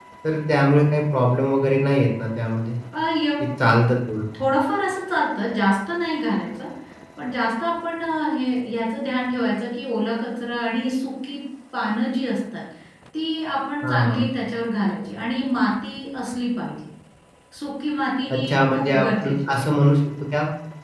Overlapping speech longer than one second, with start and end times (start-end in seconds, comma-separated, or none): 18.3-19.6